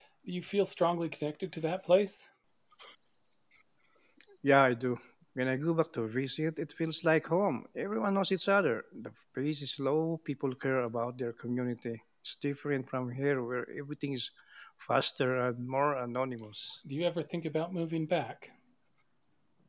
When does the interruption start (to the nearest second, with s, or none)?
none